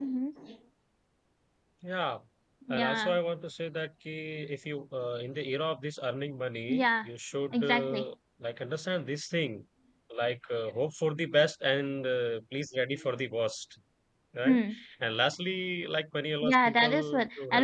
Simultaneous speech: Yes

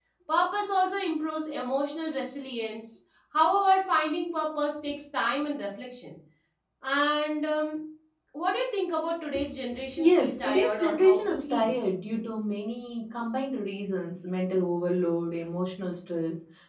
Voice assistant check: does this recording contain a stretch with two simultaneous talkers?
Yes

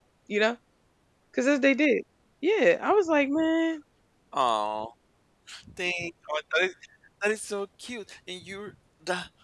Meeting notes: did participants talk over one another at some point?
No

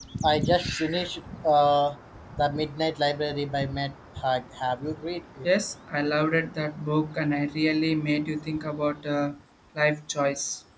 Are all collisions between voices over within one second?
Yes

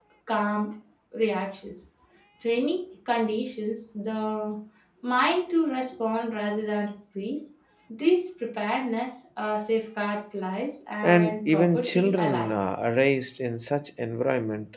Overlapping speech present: Yes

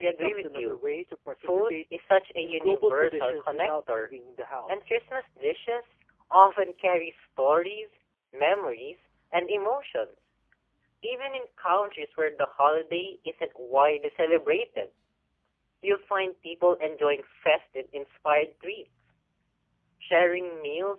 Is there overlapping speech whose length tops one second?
Yes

